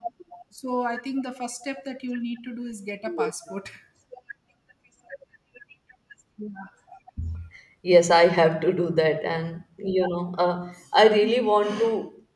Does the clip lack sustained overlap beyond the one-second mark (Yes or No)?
Yes